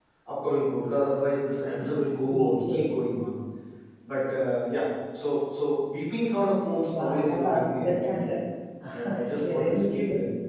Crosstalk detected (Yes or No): Yes